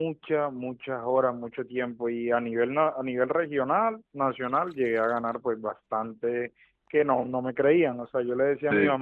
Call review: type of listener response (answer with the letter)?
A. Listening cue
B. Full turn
A